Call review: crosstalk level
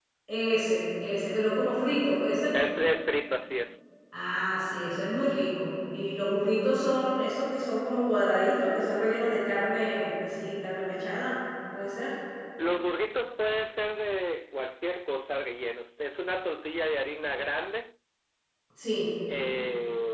none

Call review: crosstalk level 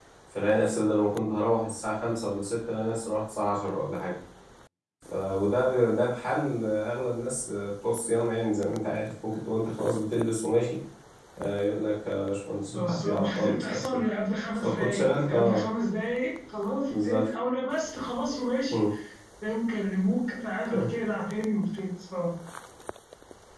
present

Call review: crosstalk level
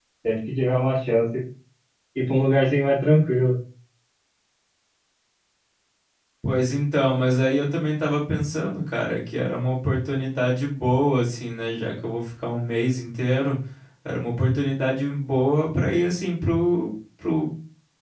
none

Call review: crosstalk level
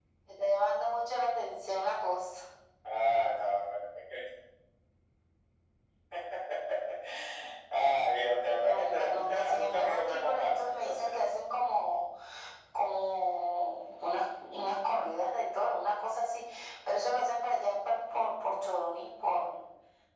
present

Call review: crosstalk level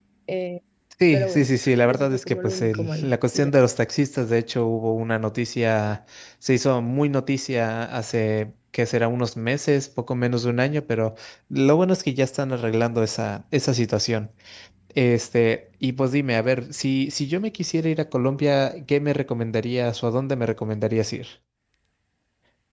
present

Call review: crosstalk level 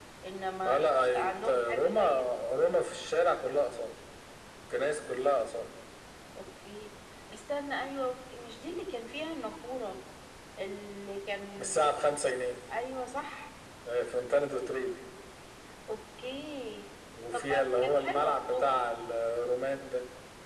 present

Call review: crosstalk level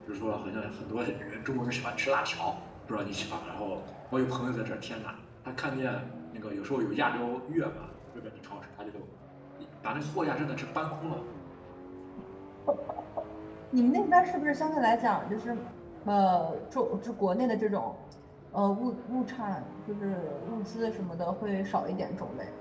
none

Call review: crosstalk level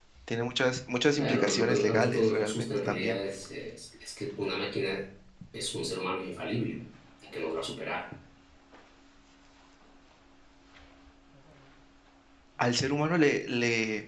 present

